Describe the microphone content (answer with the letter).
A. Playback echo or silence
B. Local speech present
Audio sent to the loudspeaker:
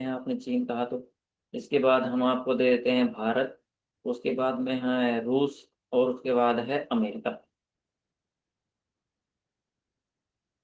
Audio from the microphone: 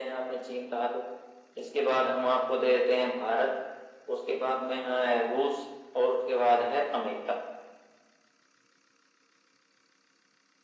A